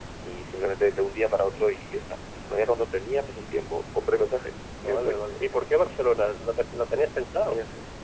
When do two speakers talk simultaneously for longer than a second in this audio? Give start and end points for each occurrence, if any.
none

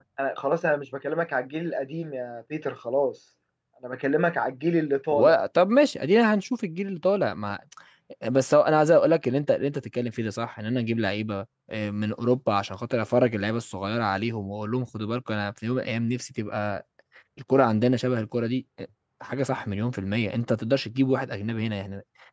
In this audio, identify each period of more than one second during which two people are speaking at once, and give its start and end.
none

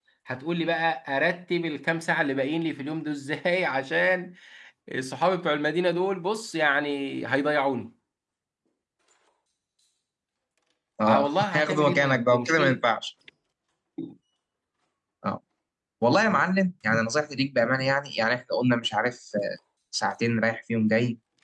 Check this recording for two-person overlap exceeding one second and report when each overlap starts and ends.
11.1-12.8

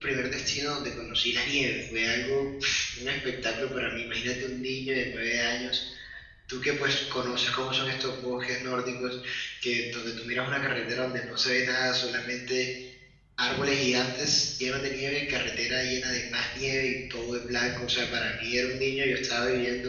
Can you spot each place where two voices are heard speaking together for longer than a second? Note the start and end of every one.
none

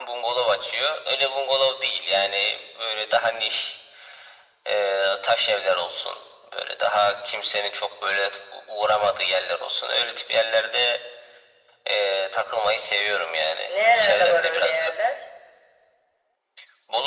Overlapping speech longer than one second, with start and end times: 13.7-14.9

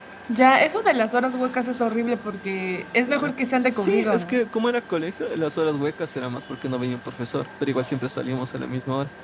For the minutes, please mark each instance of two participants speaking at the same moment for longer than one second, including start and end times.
3.2-4.4

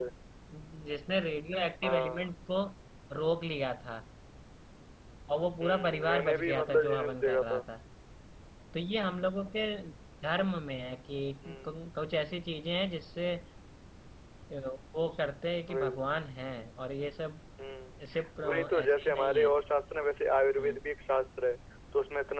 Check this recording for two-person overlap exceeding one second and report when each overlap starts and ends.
5.6-7.6, 18.1-19.5

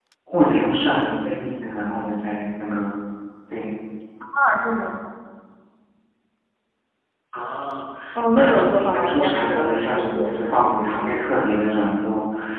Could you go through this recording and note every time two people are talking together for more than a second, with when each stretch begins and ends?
8.3-10.4

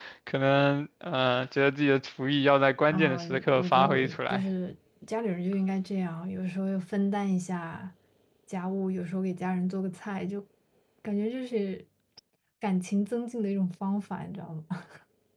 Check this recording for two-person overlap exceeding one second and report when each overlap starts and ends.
2.9-4.4

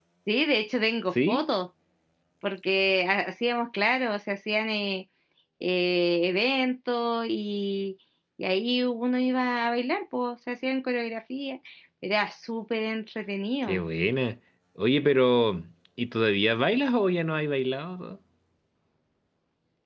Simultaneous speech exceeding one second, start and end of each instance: none

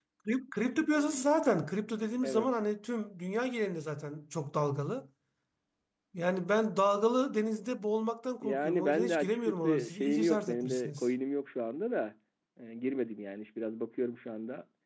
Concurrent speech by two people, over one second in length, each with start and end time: 8.4-11.1

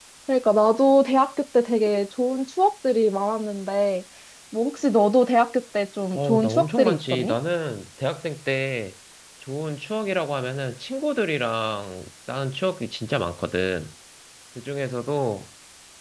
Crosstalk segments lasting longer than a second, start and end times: 6.1-7.4

